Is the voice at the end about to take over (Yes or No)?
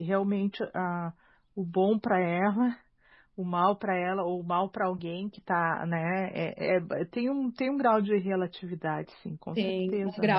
Yes